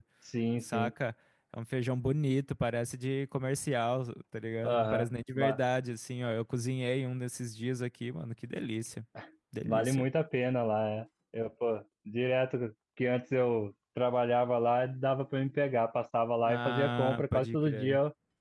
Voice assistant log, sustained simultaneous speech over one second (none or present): present